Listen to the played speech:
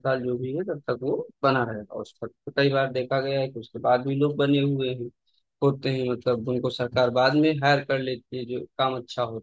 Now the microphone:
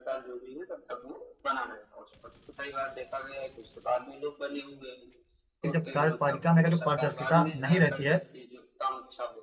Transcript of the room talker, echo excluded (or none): कि जब कार्यपालिका में अगर जो पारदर्शिता नहीं रहती है